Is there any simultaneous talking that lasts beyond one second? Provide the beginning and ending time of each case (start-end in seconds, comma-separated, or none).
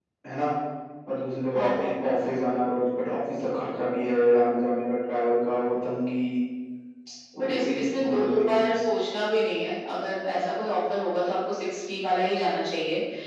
7.4-8.6